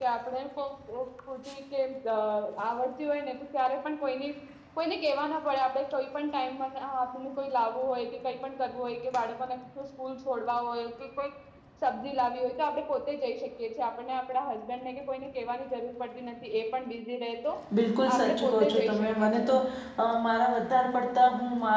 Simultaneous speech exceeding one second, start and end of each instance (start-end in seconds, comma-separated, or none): 18.1-19.5